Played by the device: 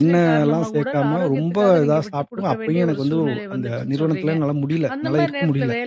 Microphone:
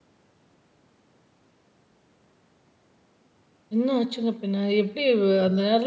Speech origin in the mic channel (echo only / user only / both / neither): user only